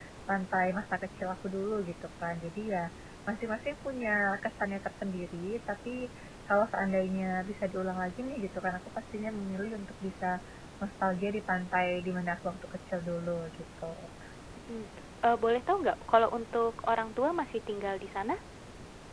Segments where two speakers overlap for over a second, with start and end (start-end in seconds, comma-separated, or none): none